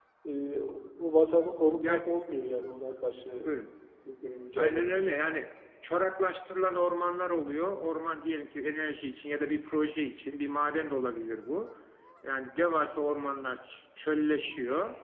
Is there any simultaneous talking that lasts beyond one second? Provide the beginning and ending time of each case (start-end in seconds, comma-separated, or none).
none